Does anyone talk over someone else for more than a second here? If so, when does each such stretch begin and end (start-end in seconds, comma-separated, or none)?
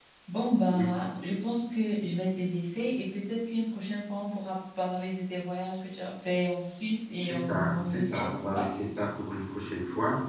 7.2-8.7